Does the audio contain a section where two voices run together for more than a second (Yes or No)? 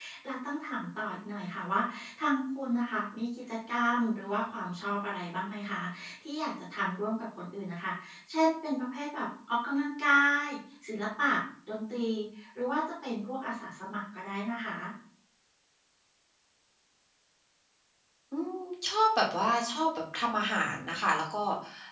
No